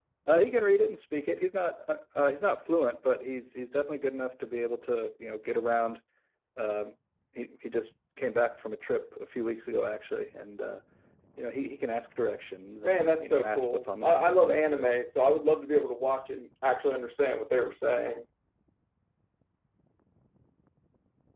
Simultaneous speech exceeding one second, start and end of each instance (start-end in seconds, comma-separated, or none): 12.8-15.0